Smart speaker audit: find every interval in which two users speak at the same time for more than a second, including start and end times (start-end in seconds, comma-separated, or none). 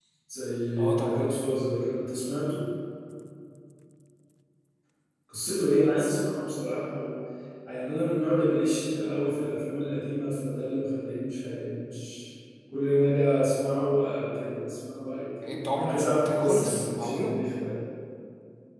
15.4-17.3